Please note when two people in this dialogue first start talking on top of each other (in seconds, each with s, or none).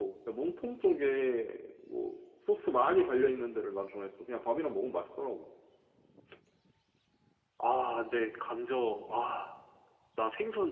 none